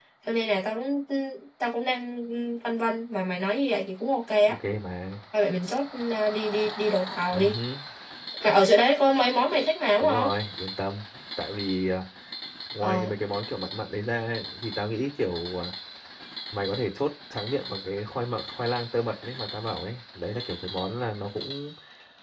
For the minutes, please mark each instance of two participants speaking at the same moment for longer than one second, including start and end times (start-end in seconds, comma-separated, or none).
none